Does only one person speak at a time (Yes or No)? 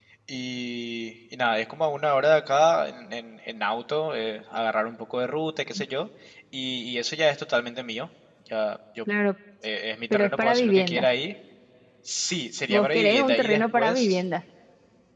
No